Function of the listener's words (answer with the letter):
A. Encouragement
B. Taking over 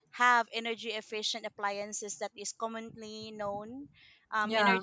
A